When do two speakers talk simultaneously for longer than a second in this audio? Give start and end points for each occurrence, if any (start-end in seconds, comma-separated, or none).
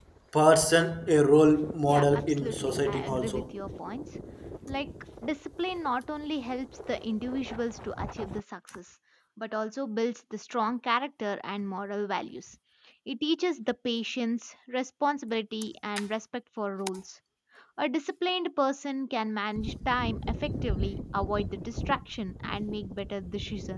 1.9-3.4